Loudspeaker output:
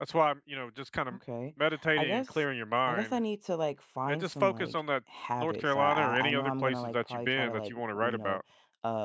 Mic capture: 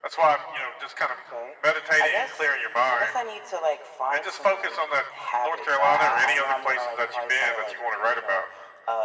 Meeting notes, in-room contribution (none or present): none